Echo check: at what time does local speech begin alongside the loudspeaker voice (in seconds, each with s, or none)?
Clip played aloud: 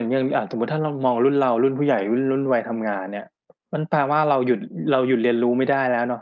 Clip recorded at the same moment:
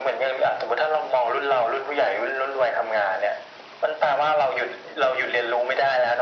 none